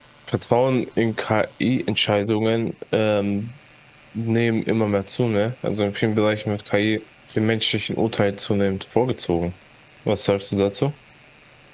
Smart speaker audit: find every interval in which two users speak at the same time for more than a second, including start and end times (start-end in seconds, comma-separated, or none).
none